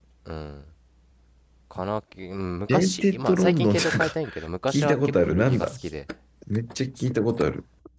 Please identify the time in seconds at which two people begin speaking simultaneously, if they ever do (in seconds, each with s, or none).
2.7 s